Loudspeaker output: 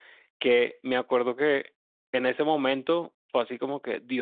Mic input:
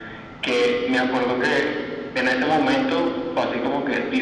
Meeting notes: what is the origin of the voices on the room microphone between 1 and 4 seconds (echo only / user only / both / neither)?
echo only